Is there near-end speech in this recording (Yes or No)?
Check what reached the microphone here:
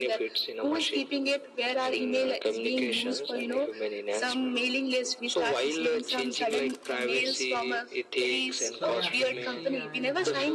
Yes